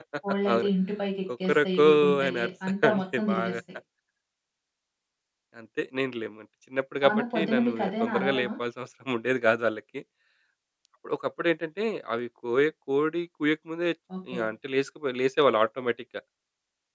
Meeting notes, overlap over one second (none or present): present